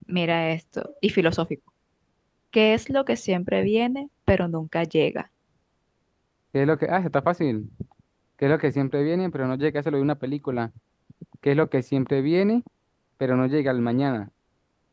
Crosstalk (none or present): none